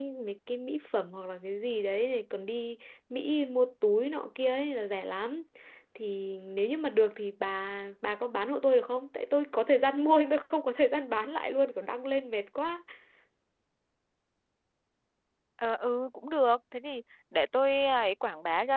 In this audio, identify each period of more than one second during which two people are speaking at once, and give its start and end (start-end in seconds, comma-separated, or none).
none